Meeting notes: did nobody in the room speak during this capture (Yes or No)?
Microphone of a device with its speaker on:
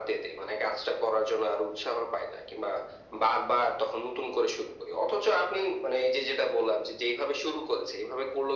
Yes